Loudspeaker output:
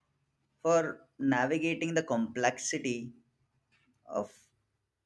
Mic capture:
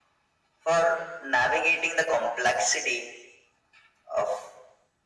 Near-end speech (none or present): none